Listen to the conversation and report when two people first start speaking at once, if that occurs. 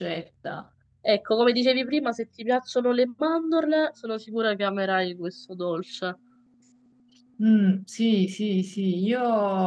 none

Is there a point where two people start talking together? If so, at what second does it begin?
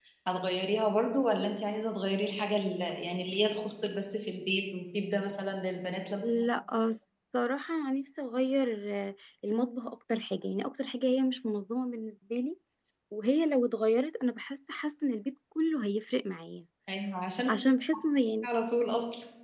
none

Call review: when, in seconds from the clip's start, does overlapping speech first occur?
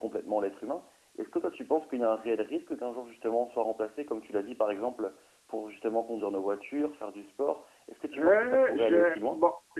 8.1 s

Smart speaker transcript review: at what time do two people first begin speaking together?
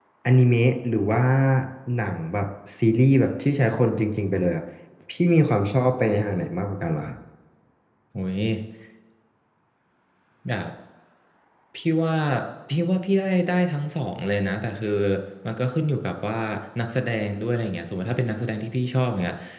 none

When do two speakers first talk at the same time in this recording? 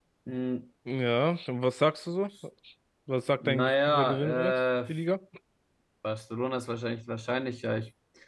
3.4 s

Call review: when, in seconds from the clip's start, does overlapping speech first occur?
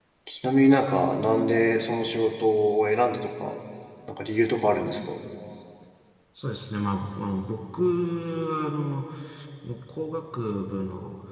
none

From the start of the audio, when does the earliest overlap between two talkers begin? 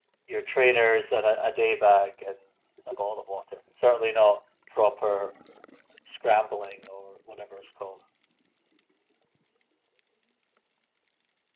none

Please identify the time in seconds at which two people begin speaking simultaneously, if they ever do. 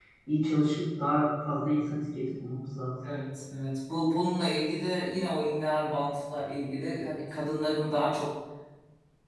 none

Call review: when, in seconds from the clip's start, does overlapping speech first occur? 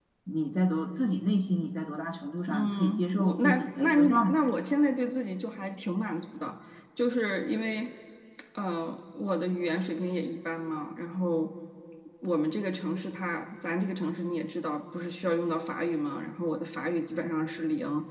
2.5 s

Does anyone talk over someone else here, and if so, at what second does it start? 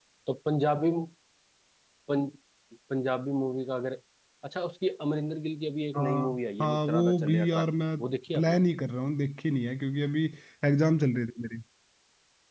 5.9 s

